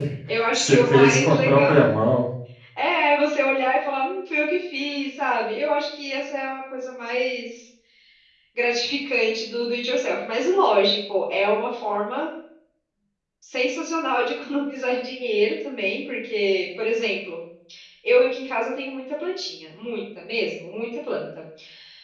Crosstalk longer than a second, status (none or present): present